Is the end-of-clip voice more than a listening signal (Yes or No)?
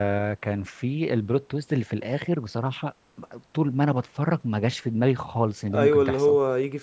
Yes